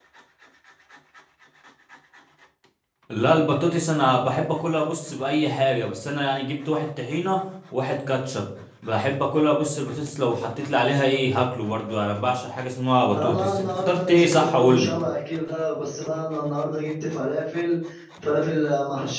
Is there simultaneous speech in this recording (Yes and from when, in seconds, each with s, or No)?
Yes, from 13.1 s